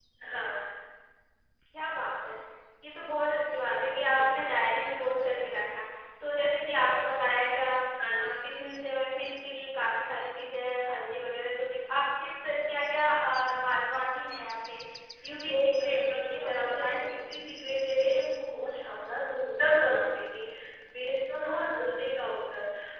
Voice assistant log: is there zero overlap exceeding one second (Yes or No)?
No